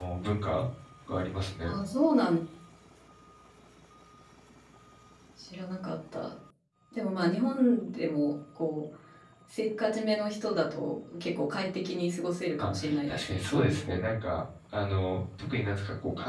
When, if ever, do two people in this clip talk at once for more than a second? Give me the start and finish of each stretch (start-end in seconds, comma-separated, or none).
12.6-14.1